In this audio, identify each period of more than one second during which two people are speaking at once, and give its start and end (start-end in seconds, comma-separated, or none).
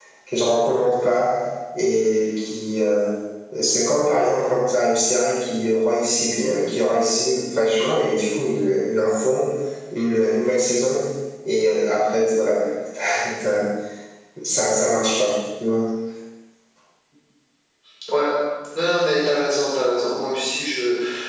none